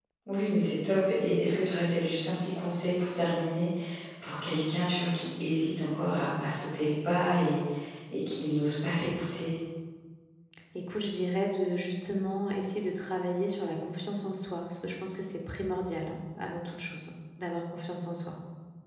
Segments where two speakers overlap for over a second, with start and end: none

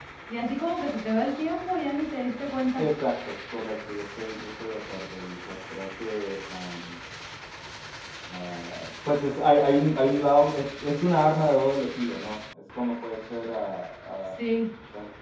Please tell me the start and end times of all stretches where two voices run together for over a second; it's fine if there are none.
none

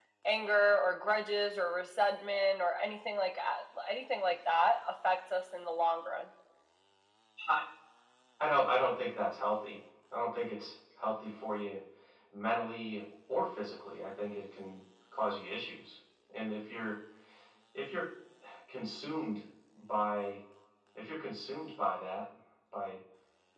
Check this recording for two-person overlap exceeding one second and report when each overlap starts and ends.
none

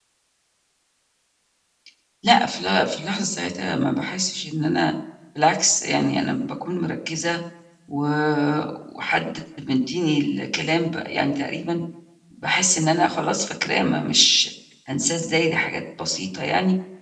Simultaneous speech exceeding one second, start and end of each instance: none

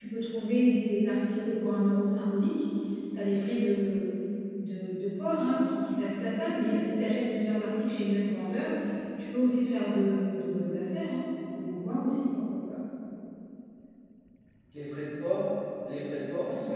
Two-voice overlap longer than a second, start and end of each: none

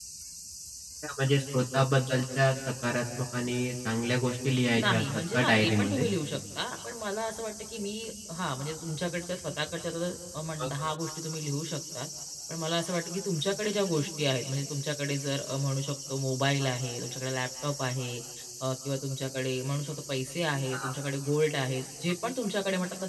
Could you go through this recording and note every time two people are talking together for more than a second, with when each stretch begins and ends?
4.8-6.1

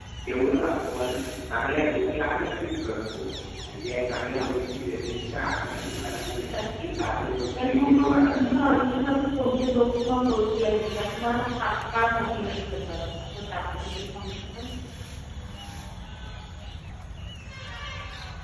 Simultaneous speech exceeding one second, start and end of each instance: 7.6-8.8

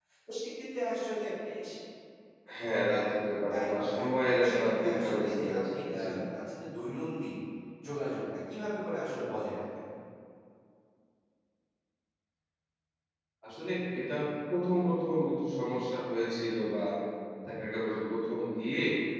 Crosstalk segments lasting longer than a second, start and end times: 3.6-6.1

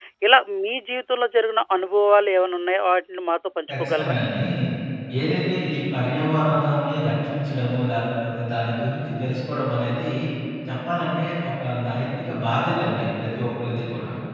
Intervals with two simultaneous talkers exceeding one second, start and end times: none

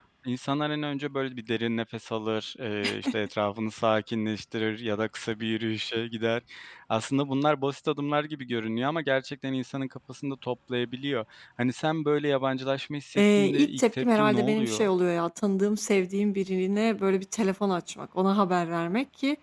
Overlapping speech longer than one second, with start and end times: 13.2-14.9

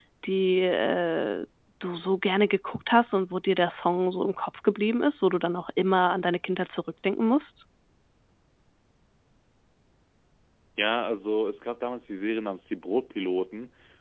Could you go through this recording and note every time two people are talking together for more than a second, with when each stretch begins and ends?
none

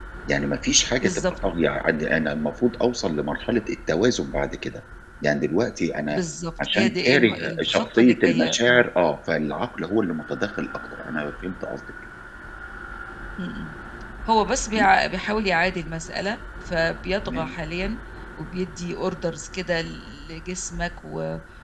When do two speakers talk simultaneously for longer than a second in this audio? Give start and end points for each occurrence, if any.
6.7-8.9

